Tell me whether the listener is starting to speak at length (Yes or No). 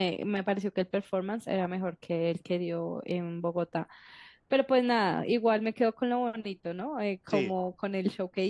No